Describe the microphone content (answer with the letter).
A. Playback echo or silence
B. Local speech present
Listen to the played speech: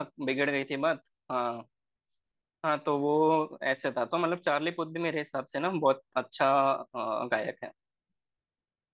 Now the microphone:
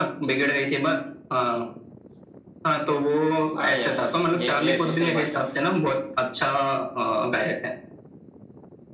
B